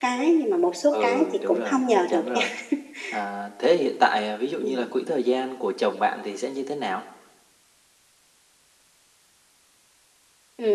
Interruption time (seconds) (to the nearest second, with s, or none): 1 s